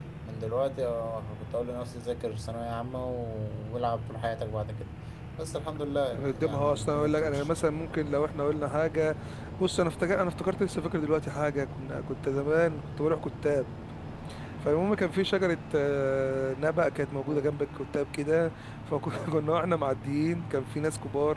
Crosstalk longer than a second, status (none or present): present